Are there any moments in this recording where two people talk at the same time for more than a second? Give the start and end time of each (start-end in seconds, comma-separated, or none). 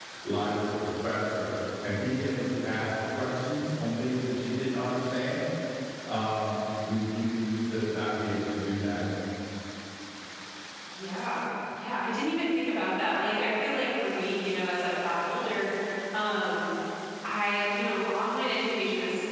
none